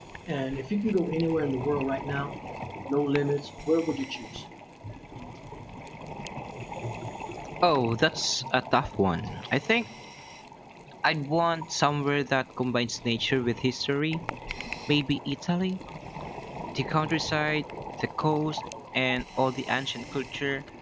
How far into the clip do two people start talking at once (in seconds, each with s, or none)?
none